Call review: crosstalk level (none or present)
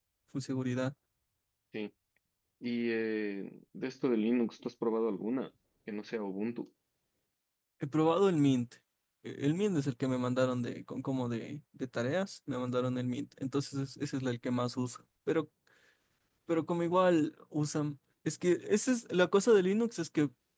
none